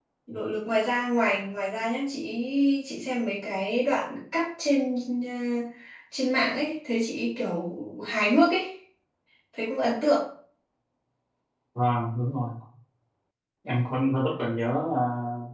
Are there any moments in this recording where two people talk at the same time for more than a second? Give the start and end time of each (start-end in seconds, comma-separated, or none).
none